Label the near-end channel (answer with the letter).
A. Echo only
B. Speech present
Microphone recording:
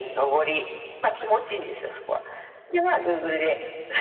A